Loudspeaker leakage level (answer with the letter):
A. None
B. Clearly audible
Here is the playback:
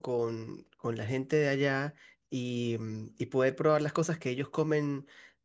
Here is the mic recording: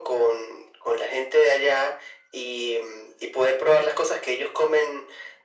B